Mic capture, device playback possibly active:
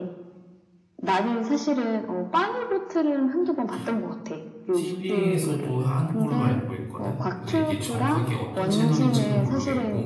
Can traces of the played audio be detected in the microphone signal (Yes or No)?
Yes